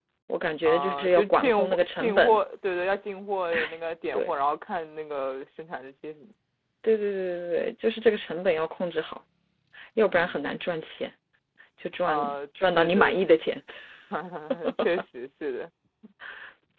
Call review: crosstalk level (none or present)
present